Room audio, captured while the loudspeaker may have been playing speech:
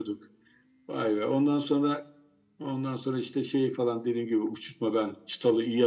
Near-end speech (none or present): none